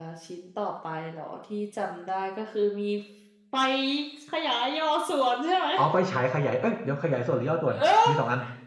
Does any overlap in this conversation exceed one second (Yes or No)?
No